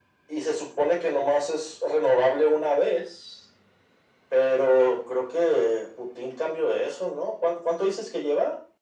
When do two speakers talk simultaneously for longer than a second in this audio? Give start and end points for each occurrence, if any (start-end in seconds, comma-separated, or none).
none